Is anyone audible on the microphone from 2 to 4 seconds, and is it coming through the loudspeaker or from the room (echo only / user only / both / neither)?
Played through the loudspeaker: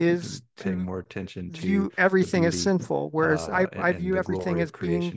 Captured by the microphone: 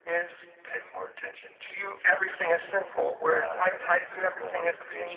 echo only